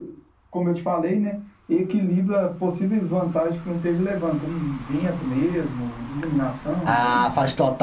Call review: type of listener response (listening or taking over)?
taking over